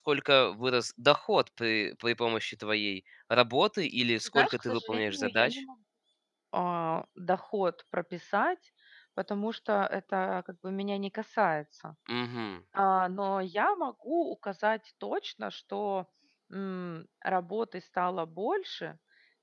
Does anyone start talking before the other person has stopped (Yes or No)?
Yes